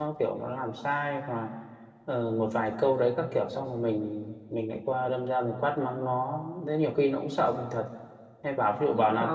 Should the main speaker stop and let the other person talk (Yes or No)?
No